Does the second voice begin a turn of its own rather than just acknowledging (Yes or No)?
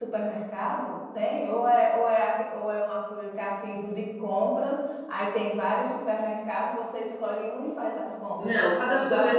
Yes